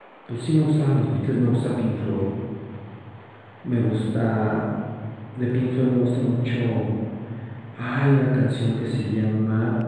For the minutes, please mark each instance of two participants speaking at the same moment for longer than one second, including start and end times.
none

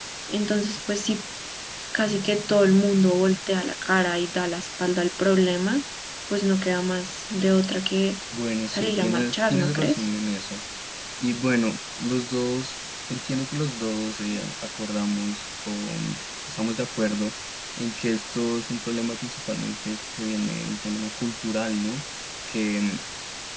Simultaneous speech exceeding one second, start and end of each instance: 8.7-10.1

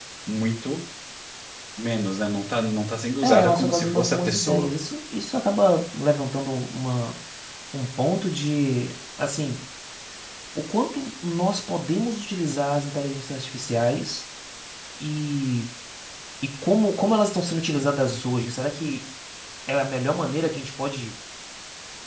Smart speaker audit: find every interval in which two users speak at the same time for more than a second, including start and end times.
3.2-4.7

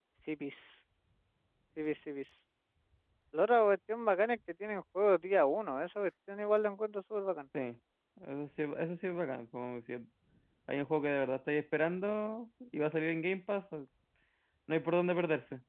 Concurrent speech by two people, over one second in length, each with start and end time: none

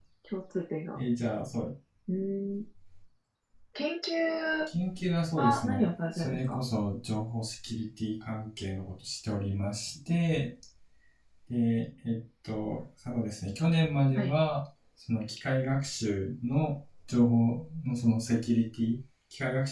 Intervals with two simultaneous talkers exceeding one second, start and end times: 5.4-6.6

